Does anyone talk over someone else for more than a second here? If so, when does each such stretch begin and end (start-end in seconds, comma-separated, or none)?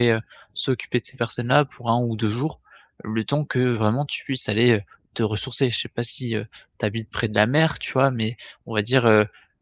none